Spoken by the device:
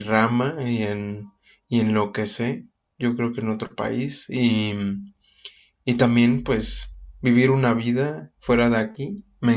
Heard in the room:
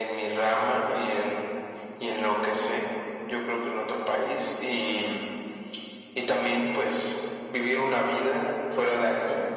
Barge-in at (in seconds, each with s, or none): none